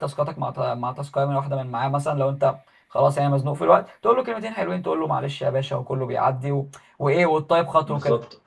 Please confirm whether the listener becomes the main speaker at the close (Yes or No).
Yes